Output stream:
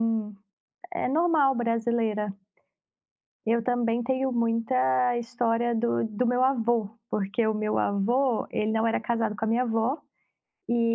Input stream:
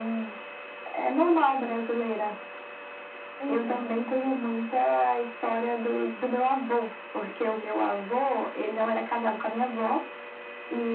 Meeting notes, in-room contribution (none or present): present